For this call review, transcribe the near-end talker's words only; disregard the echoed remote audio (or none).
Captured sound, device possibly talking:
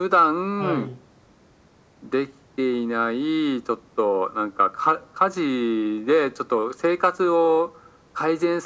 はい。